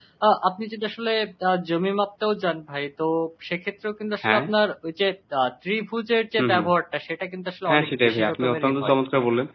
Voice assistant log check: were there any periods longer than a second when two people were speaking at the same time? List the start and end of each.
7.7-8.9

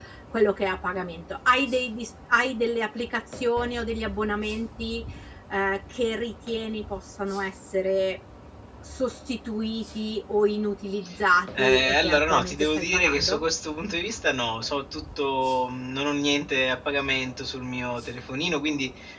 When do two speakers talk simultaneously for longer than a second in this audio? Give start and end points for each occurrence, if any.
11.6-13.4

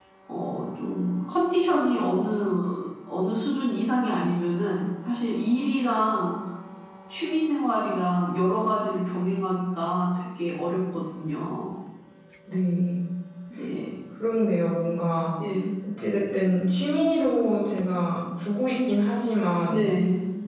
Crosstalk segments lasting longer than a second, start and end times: none

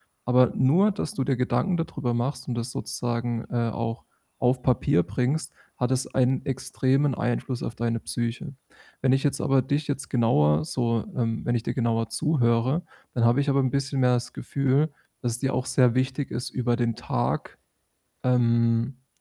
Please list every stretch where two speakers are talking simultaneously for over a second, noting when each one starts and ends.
none

